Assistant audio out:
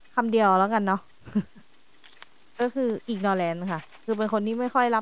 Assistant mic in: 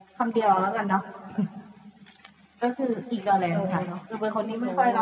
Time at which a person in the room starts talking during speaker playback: 3.5 s

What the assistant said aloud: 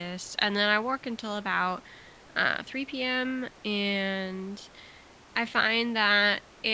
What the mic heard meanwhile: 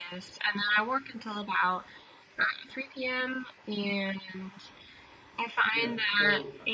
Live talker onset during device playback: 5.7 s

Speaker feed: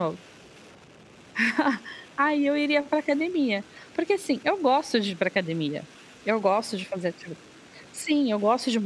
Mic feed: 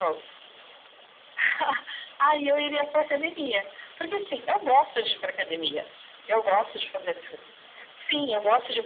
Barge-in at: none

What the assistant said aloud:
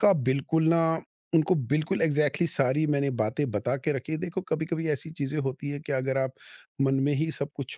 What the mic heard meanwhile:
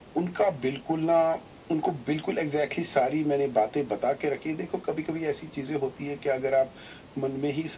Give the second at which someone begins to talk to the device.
none

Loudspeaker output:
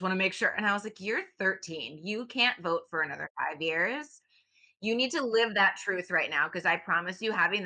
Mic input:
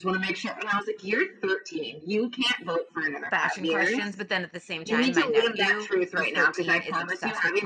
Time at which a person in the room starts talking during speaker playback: 3.3 s

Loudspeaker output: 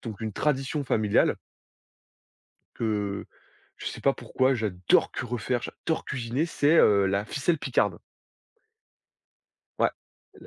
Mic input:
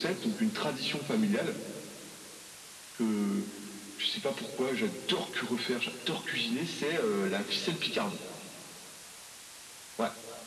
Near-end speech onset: none

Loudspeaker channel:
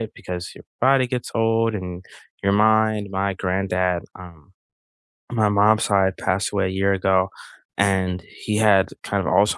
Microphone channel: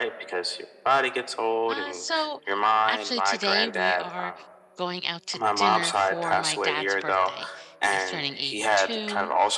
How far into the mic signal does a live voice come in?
1.7 s

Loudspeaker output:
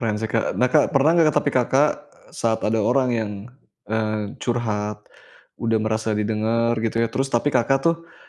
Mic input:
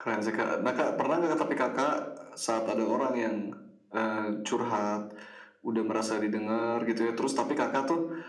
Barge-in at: none

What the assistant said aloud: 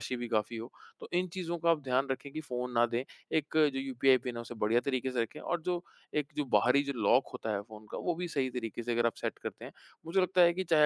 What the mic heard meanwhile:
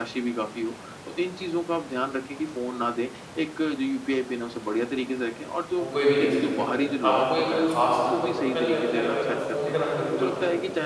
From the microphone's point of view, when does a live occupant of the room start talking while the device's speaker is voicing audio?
5.8 s

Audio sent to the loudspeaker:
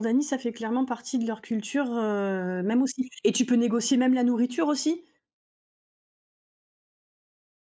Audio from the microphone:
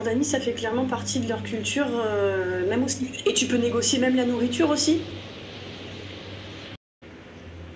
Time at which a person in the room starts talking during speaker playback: none

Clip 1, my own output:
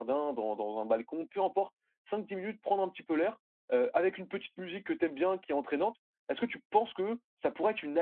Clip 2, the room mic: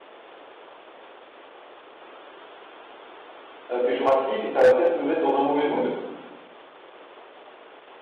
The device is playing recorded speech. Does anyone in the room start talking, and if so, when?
3.7 s

